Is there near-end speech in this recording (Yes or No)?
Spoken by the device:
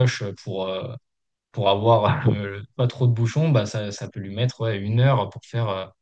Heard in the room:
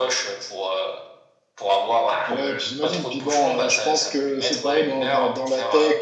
Yes